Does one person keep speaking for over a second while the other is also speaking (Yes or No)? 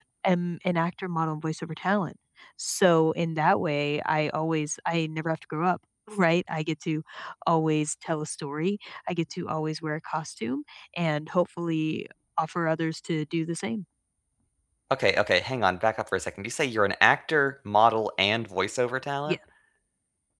No